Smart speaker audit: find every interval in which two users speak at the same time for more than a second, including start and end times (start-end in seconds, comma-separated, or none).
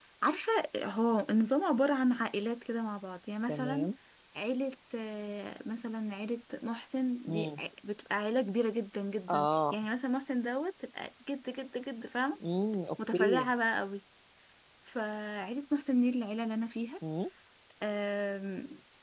none